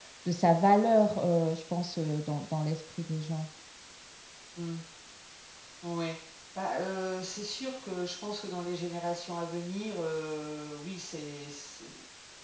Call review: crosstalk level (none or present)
none